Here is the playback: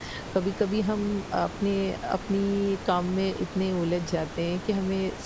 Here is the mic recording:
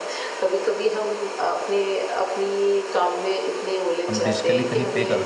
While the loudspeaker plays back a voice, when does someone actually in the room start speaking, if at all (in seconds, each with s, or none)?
4.1 s